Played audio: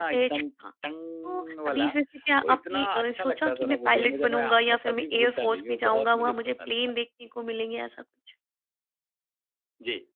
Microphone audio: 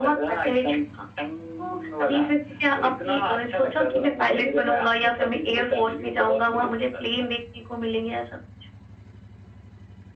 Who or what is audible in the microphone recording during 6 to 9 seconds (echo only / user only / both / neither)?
echo only